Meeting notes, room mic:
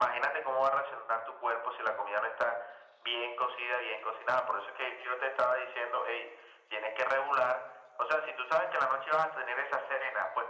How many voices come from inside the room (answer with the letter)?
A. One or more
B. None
B